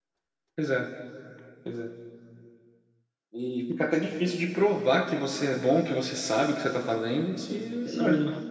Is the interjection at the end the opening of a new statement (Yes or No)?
No